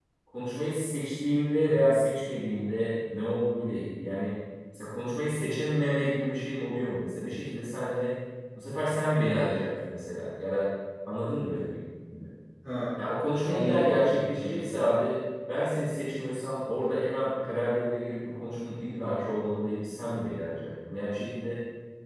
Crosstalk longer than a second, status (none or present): present